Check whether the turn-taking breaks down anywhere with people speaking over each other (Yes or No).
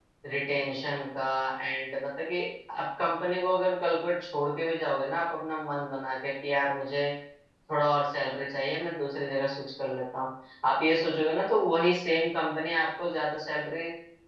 No